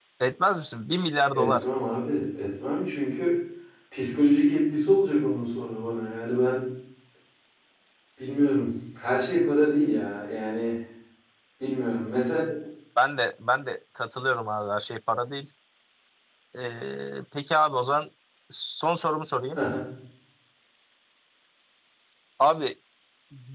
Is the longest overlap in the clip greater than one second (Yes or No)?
No